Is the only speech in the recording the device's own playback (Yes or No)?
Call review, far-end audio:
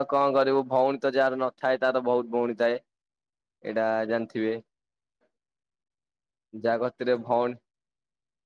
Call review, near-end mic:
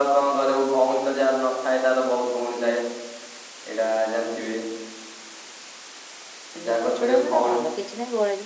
No